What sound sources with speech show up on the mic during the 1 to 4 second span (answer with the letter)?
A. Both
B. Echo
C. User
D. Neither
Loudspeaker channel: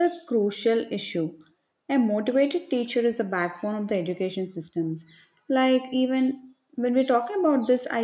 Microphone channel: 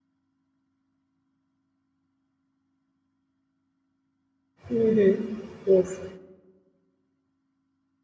D